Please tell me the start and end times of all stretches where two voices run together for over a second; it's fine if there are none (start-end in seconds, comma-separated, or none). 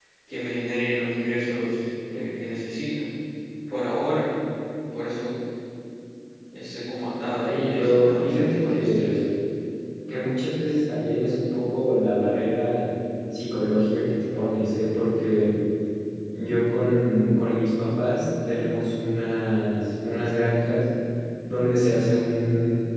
7.4-9.2